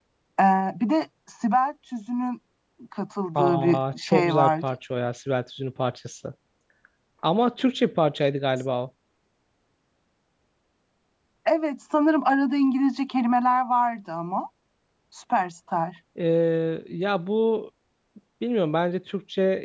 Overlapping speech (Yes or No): Yes